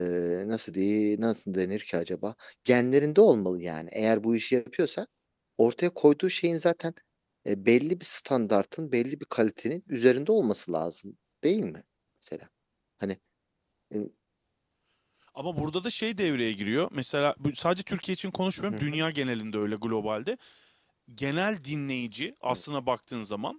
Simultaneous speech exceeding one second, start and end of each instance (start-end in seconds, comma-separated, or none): none